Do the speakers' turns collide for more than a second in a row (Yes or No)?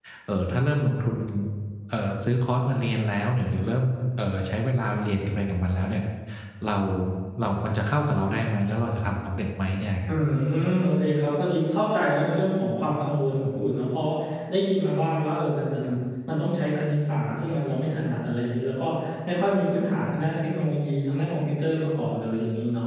No